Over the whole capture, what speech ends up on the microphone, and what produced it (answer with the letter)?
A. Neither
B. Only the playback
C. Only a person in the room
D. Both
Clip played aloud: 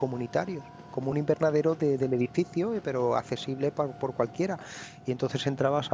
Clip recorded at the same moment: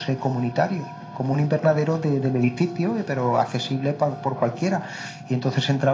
B